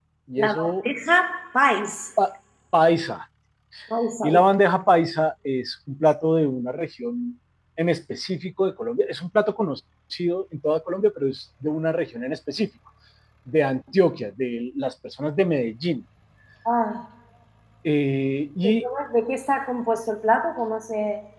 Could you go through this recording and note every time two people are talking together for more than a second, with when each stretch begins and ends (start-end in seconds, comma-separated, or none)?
none